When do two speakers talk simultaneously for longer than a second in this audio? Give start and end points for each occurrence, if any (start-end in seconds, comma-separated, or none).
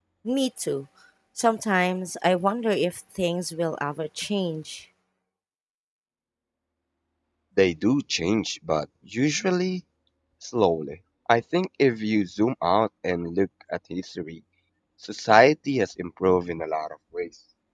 none